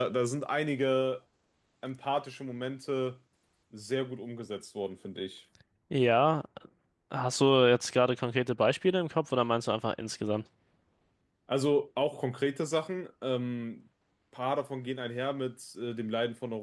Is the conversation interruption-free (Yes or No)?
Yes